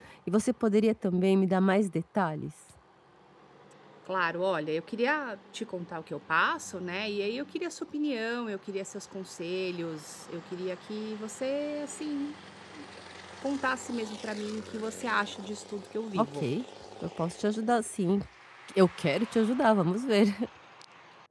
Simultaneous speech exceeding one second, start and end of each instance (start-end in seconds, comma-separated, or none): none